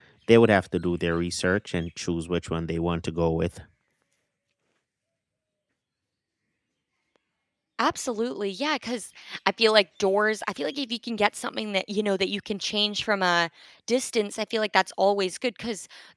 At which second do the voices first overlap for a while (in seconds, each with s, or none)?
none